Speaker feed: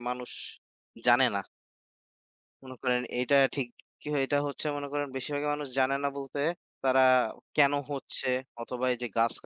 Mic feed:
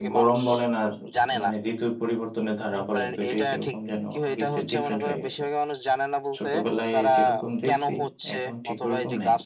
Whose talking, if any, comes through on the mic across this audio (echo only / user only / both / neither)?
both